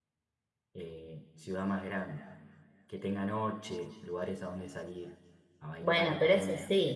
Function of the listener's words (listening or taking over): taking over